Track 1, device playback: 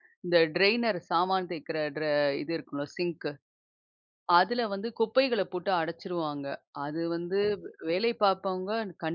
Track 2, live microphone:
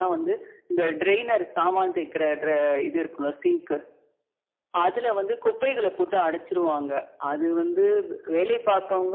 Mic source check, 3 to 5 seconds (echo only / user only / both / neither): echo only